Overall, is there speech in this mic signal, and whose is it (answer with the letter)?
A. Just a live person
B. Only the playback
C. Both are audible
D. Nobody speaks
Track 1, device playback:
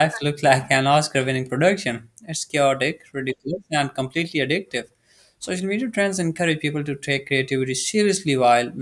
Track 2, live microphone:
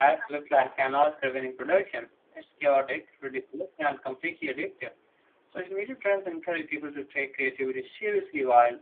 B